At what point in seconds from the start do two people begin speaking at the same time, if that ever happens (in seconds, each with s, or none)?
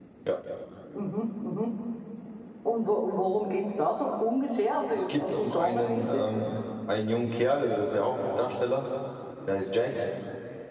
5.0 s